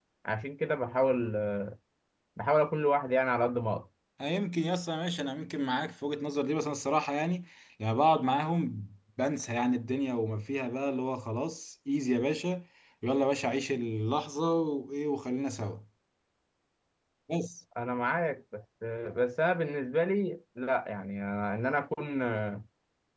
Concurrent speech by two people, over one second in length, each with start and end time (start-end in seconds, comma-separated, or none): none